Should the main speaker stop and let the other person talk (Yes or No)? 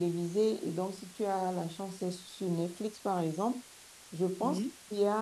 No